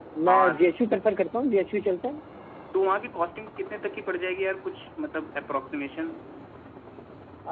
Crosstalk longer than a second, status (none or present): none